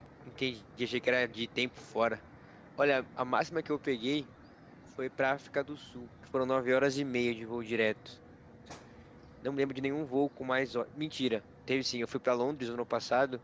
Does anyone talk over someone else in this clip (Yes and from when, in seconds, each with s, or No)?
No